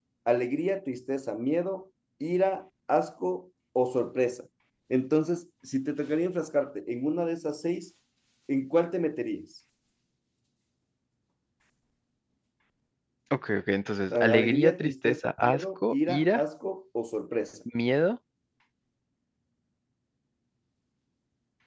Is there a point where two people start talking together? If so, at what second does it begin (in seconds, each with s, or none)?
14.1 s